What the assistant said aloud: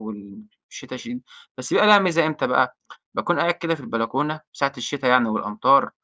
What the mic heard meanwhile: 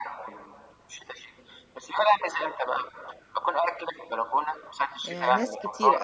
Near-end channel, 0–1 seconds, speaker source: echo only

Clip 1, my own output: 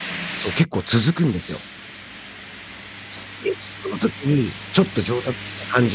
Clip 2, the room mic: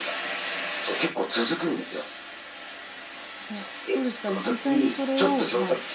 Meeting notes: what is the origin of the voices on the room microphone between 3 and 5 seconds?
both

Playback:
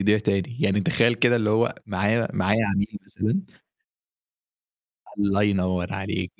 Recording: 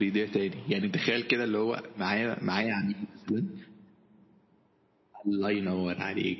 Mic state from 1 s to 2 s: echo only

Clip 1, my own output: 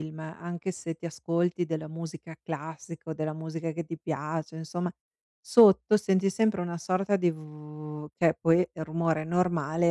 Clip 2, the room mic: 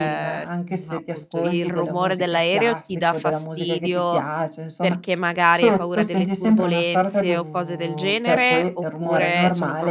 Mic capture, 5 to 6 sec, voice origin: both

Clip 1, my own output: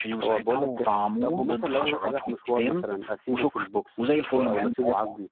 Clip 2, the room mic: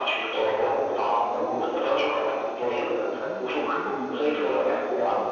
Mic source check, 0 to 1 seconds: echo only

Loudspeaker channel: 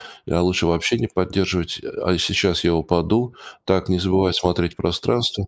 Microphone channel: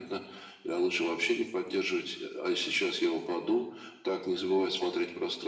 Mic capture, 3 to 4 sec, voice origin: echo only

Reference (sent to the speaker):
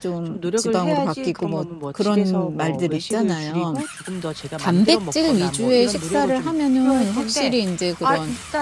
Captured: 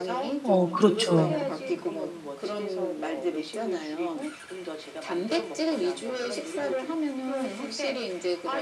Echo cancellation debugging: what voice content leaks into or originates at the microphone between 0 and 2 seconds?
both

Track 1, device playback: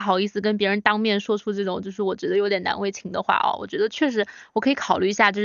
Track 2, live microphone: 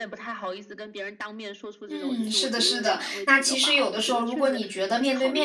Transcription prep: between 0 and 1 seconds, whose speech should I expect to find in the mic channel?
echo only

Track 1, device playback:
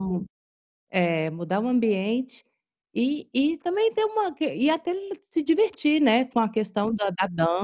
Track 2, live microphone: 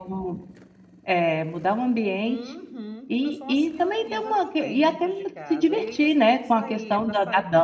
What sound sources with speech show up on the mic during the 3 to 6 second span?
both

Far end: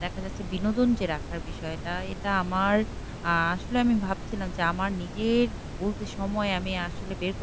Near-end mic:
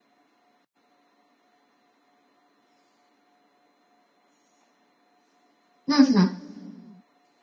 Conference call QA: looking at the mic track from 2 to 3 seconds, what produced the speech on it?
neither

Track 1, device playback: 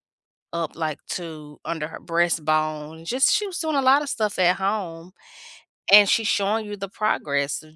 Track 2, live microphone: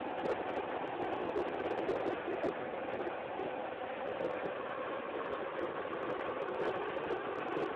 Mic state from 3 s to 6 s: neither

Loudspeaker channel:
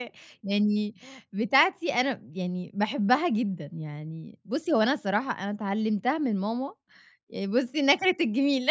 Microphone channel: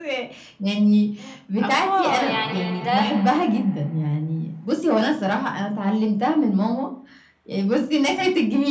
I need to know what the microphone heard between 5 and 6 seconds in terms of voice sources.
echo only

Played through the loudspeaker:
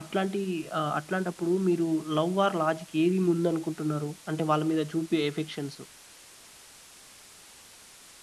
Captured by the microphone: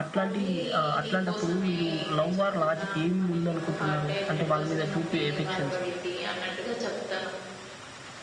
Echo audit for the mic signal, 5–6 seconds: both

